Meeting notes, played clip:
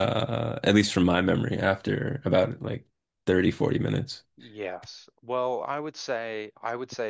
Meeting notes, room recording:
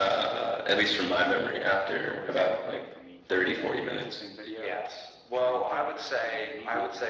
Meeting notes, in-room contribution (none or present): present